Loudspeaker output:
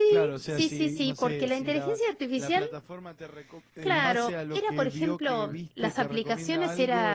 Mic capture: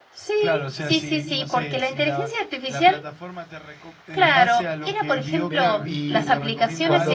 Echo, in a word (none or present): present